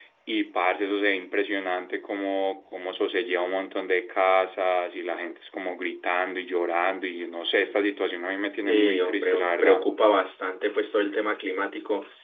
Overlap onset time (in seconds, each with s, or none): 8.6 s